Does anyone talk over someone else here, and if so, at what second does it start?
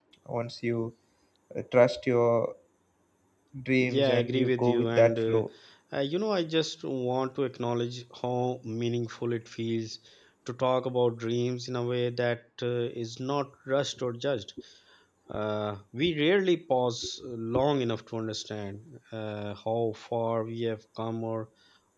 3.8 s

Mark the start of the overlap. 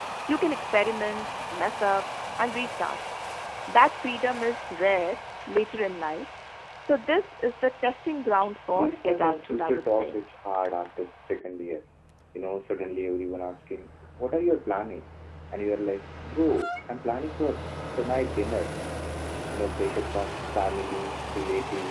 8.7 s

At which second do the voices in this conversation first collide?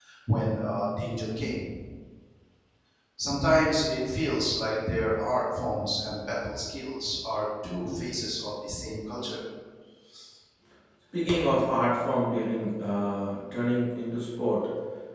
none

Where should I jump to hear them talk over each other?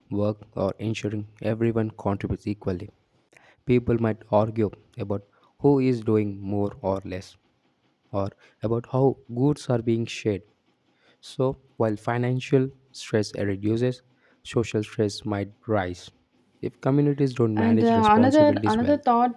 17.6 s

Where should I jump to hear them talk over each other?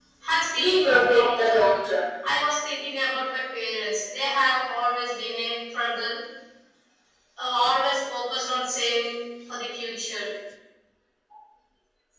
0.6 s

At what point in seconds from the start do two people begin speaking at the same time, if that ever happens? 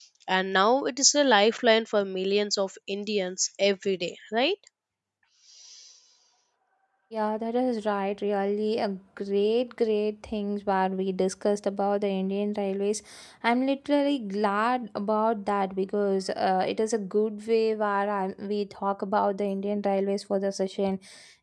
none

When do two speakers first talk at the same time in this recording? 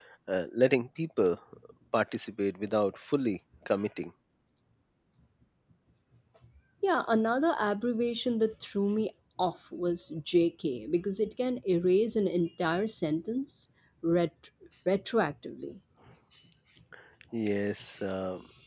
none

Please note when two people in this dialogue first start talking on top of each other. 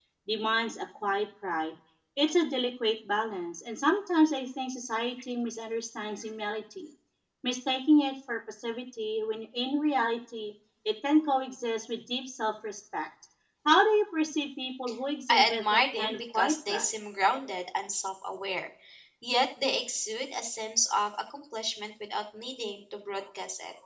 15.3 s

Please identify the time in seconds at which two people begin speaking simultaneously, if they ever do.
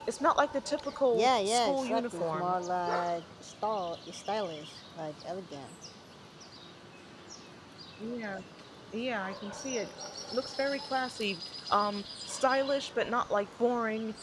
1.1 s

